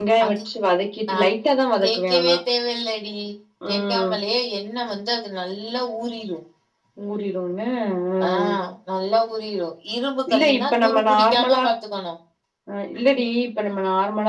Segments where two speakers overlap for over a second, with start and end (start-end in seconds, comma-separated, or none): 10.3-11.7